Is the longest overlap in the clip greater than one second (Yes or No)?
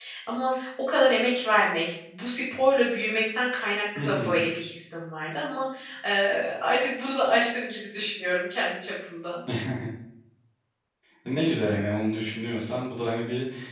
No